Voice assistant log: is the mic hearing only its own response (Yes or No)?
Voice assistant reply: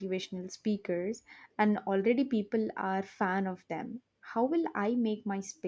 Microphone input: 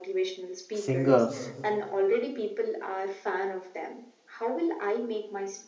No